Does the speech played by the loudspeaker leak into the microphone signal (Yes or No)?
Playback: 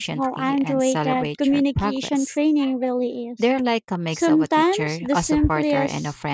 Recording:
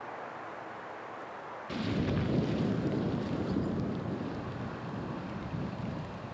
No